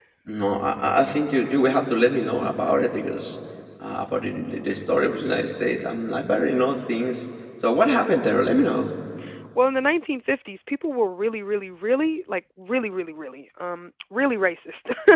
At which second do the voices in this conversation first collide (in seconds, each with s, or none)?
none